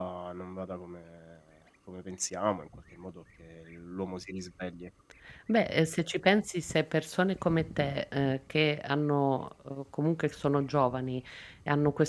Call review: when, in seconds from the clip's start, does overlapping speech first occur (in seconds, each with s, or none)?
none